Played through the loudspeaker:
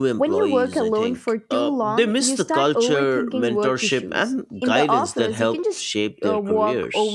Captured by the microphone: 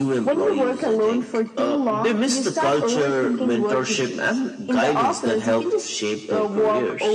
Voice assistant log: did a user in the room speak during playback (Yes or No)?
No